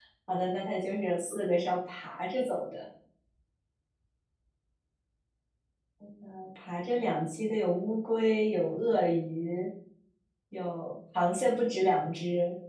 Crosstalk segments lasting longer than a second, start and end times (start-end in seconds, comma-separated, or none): none